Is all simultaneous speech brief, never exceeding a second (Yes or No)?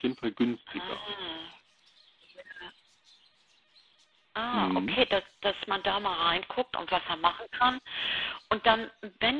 Yes